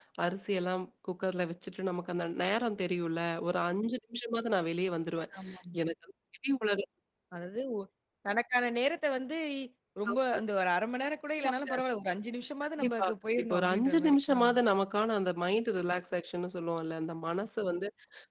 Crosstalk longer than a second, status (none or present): present